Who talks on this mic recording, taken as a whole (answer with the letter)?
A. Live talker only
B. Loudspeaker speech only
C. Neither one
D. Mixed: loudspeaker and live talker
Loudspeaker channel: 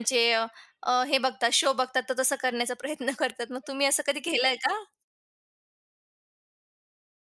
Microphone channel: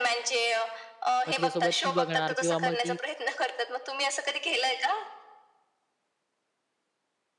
D